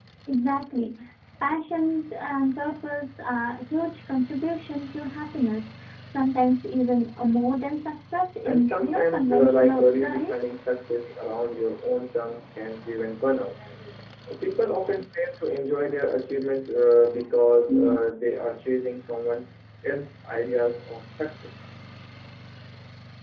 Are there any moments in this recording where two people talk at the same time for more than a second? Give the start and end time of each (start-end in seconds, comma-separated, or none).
8.4-10.4